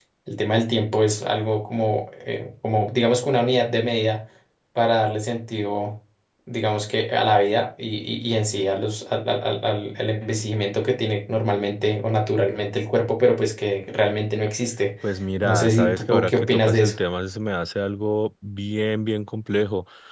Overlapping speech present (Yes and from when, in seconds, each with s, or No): Yes, from 15.4 s